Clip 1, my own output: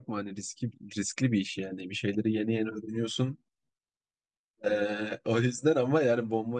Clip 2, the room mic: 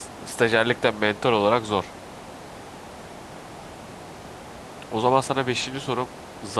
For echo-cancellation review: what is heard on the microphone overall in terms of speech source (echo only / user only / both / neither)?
user only